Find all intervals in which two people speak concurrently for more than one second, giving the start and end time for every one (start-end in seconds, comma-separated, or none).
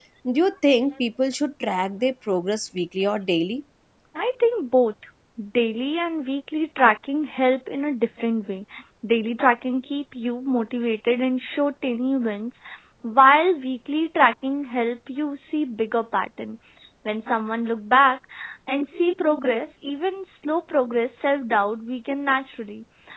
none